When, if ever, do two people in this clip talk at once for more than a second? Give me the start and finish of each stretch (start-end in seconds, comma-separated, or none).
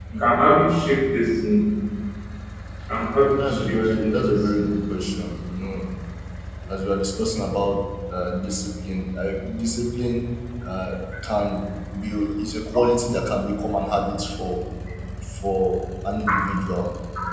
3.4-4.8